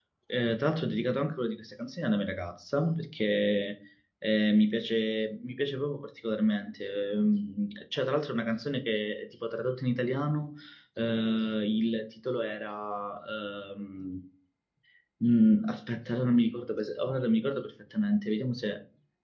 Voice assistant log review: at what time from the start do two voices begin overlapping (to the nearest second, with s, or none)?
none